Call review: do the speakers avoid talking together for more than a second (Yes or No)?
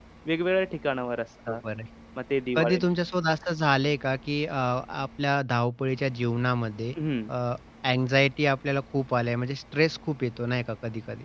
Yes